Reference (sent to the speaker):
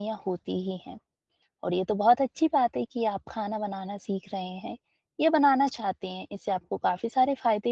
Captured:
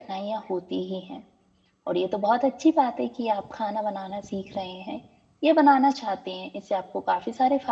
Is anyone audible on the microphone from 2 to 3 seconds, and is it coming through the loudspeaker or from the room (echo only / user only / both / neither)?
echo only